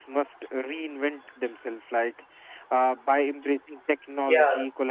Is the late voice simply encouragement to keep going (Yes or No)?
Yes